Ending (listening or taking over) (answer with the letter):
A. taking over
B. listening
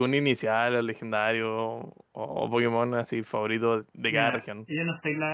A